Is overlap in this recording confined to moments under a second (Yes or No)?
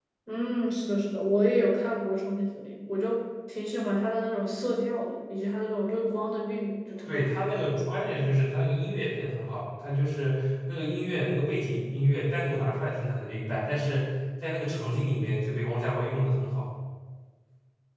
Yes